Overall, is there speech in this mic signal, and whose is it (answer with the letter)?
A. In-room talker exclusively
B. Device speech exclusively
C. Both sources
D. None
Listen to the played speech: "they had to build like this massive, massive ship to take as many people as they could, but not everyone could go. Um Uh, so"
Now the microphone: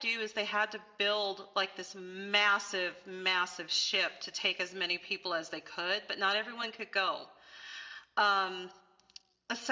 B